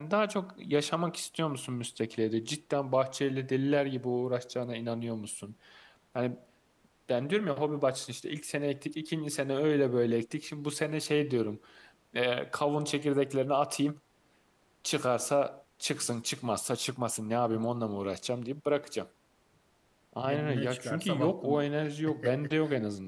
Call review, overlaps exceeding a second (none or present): present